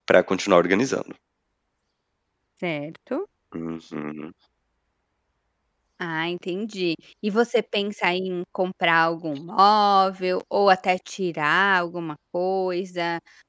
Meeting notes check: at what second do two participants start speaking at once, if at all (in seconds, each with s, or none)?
none